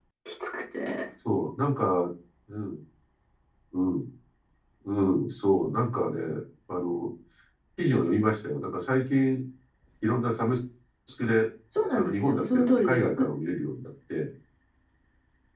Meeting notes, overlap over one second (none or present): present